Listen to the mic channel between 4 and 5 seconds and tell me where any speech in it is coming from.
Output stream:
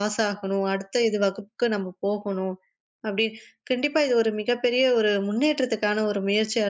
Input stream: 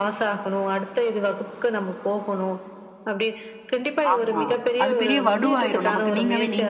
both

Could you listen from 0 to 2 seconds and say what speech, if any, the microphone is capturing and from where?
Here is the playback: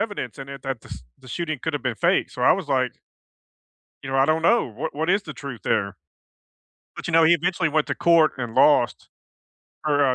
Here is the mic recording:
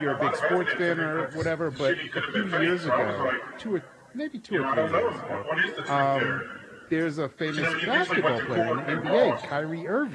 both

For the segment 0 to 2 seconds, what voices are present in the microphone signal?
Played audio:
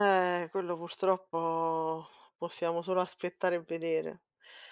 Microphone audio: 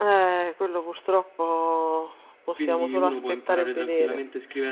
echo only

